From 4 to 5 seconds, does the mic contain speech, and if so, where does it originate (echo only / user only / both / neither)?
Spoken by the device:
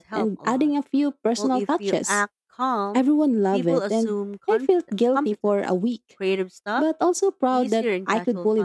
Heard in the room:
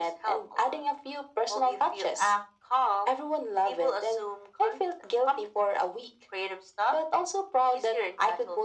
echo only